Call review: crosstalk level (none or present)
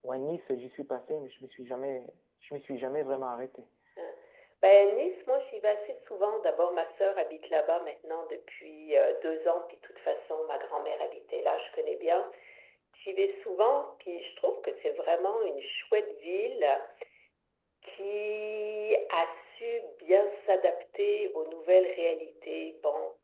none